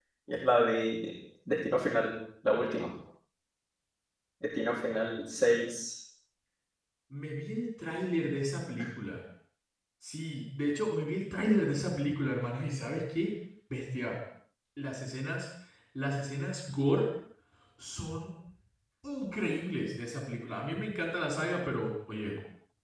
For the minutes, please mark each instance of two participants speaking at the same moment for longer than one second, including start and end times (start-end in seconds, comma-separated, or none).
none